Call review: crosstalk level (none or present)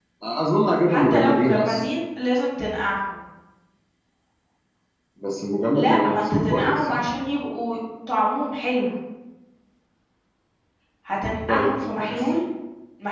present